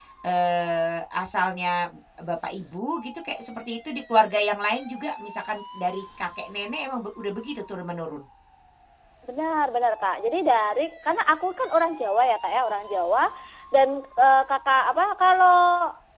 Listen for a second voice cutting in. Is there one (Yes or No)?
No